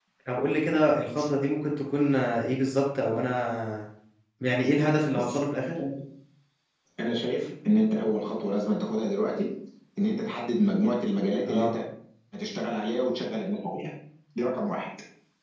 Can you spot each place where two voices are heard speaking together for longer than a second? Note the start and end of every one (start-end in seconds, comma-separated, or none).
none